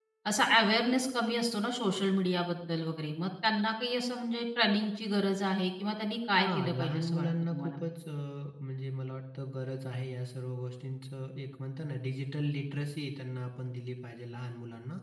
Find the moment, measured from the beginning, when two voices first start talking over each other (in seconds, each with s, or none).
6.4 s